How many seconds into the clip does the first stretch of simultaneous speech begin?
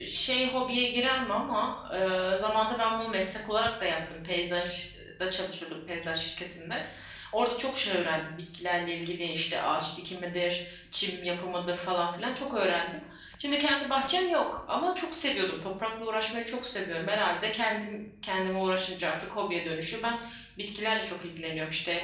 none

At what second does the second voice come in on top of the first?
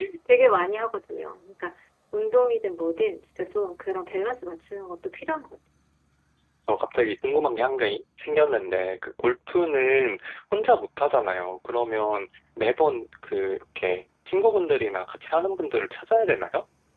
none

